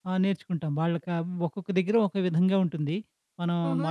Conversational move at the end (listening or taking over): taking over